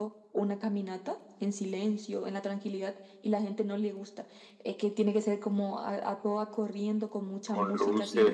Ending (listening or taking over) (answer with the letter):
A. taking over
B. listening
A